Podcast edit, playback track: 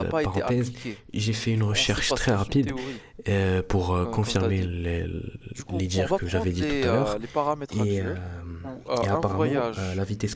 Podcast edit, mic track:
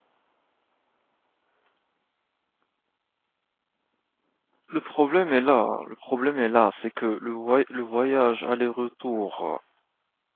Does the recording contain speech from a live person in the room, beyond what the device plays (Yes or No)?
Yes